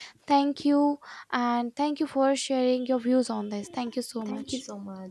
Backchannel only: No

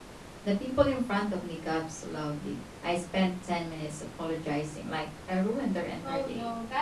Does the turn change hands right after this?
Yes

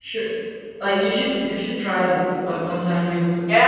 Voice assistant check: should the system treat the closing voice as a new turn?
Yes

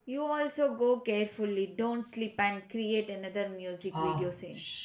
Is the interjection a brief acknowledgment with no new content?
No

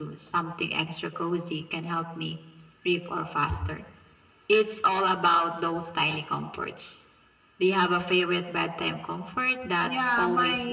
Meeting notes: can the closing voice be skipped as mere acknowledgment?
No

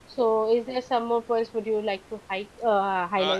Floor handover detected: Yes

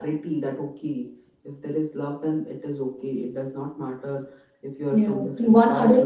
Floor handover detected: Yes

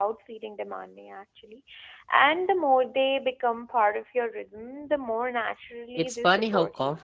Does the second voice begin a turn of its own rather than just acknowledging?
Yes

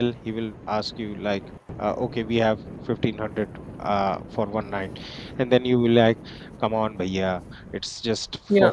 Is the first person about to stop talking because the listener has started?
No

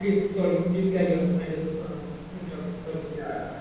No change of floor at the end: No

